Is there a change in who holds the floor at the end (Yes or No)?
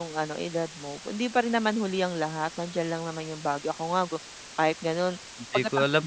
Yes